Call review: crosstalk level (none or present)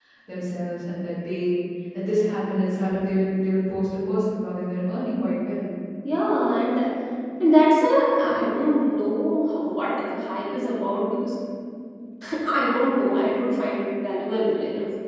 none